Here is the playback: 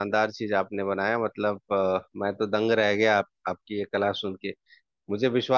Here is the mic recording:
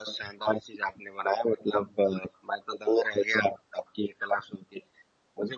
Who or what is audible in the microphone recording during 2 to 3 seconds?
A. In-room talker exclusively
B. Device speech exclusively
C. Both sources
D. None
B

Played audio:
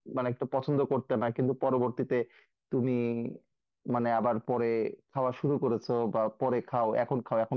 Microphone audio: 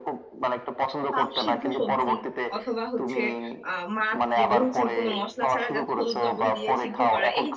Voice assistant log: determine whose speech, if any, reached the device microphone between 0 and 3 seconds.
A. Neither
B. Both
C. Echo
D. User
B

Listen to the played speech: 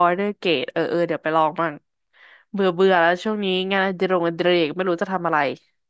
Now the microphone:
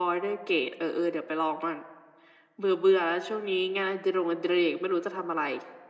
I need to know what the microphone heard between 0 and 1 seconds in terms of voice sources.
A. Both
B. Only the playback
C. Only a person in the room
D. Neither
B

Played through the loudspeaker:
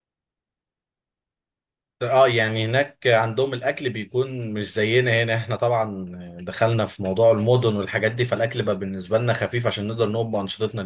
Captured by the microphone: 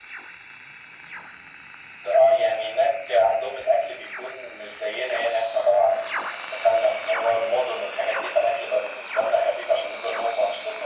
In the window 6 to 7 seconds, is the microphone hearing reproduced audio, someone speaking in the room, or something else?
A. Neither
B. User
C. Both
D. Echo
D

